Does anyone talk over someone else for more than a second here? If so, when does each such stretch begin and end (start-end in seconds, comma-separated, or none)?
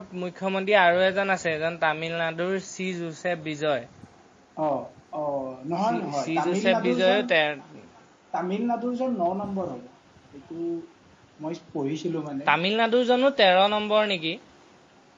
5.8-7.2